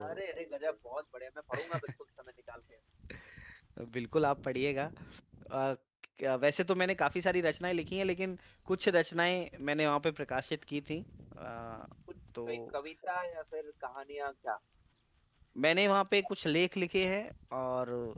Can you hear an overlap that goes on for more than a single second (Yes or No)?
No